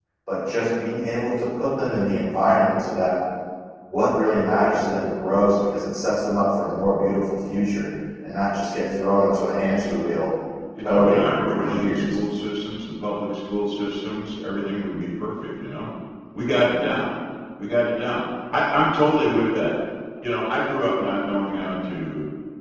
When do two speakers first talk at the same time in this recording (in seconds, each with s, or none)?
10.8 s